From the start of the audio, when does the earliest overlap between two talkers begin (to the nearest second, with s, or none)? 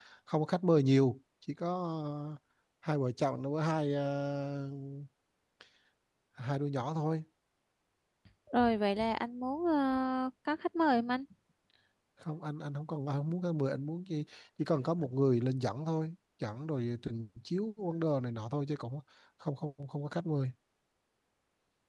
none